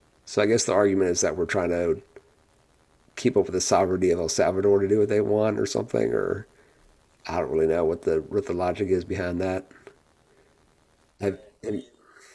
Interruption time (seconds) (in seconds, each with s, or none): none